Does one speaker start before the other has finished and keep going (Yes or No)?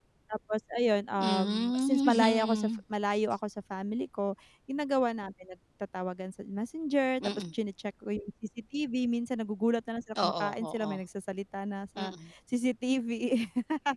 Yes